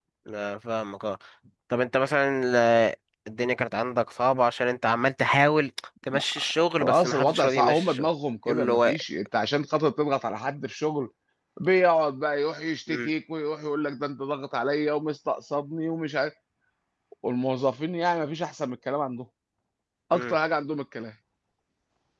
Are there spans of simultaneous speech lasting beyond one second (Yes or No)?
Yes